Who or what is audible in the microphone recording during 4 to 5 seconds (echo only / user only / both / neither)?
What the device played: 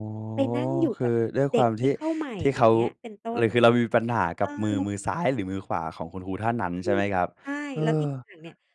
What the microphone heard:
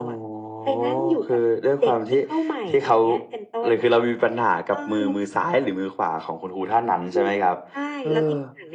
echo only